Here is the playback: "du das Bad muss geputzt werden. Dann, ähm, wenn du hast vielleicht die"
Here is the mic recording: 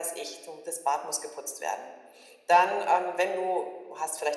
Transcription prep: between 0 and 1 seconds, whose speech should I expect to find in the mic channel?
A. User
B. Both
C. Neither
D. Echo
D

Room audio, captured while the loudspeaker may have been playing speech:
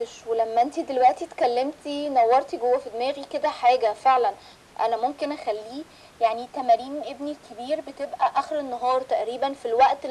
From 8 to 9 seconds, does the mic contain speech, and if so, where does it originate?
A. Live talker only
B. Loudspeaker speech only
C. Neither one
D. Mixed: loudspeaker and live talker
B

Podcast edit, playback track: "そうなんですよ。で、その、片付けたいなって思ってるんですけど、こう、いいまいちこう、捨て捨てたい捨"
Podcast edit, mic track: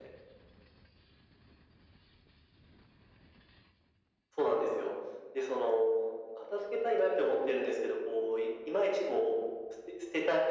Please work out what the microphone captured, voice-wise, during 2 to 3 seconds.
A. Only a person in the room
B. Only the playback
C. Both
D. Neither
D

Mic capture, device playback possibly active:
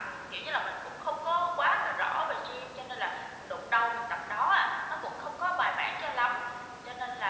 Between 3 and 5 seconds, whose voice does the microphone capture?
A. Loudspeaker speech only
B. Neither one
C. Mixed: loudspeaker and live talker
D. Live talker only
A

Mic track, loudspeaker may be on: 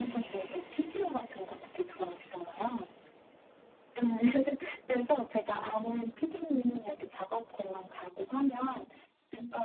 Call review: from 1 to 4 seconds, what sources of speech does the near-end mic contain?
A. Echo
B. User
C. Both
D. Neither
A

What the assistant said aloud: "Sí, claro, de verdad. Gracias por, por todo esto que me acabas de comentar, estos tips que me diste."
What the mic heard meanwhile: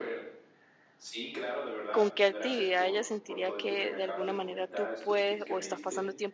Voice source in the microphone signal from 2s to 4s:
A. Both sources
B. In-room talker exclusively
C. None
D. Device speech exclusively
A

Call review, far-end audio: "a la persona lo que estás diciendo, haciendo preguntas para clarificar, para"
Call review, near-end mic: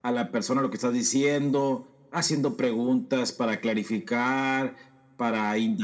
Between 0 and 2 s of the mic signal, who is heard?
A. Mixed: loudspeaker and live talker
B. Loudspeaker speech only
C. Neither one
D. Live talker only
B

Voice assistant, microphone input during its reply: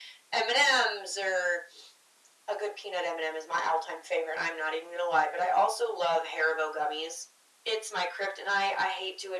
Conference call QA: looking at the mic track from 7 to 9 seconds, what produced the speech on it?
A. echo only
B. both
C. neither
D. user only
A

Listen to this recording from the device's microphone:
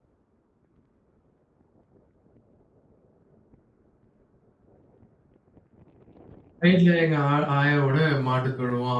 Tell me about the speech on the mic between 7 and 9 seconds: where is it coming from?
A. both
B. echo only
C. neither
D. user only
D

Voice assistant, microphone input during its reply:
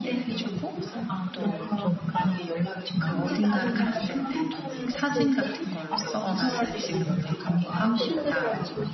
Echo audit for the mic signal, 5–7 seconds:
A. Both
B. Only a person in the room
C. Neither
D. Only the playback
A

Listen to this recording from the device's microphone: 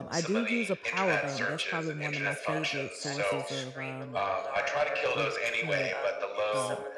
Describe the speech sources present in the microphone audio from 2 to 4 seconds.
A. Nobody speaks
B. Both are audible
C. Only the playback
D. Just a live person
B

